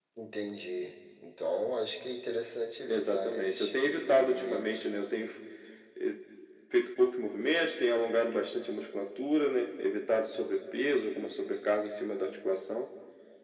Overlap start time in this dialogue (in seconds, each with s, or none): 2.9 s